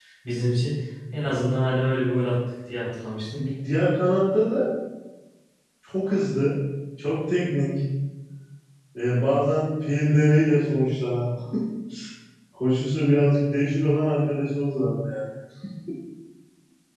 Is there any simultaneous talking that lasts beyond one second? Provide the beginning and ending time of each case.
none

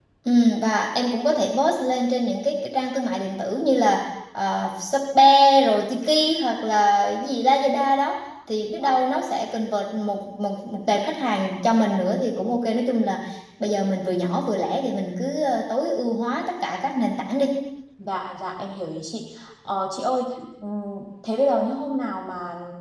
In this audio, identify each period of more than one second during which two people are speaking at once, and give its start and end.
none

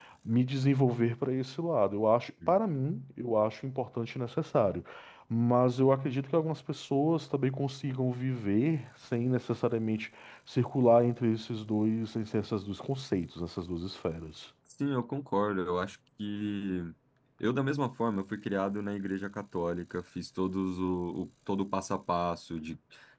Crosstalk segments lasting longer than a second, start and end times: none

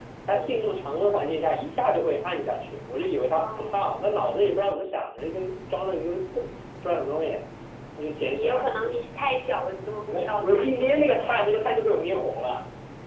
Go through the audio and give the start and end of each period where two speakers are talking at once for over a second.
10.1-11.4

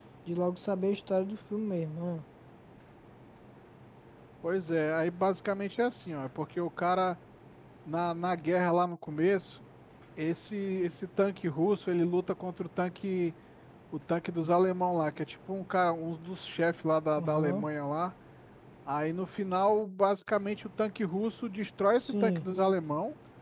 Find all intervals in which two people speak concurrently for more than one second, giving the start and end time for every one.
none

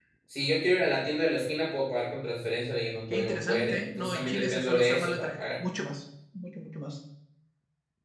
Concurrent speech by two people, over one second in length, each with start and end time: 3.1-5.5

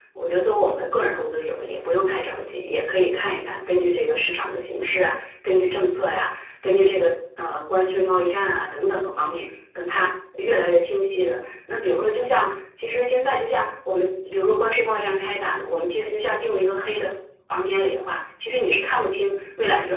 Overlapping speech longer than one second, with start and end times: none

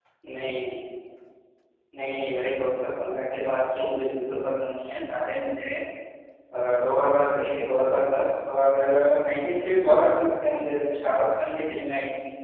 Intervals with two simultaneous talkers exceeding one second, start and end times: none

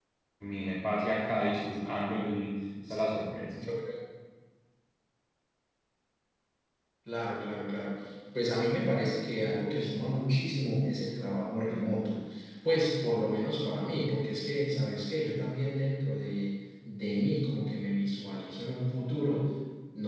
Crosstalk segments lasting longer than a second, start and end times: none

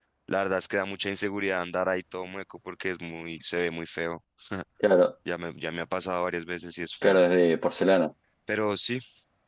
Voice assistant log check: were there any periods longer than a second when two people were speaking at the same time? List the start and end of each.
none

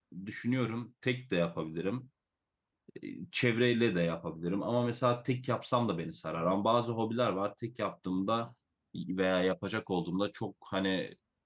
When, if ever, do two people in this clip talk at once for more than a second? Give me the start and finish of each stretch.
none

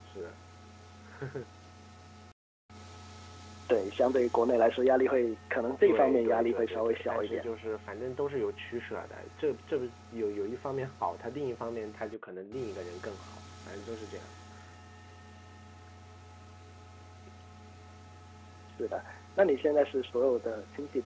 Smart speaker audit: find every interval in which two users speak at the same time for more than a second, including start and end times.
5.8-7.4

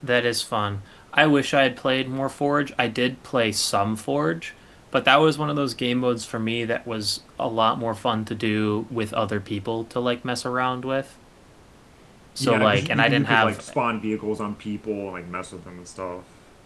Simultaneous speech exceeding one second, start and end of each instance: 12.4-13.6

